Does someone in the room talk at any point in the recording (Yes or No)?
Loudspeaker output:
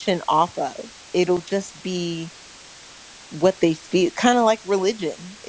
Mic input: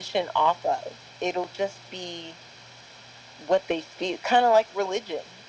No